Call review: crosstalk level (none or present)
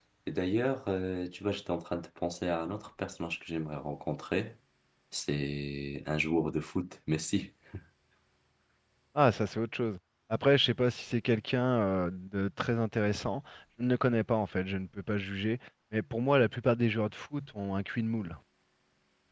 none